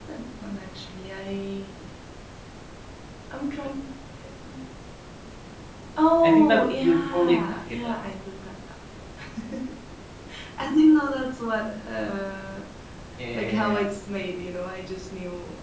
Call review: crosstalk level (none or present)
present